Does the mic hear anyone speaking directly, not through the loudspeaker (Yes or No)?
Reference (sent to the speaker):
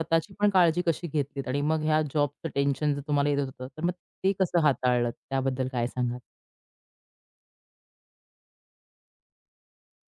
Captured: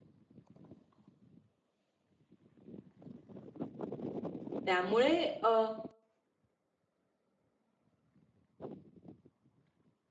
Yes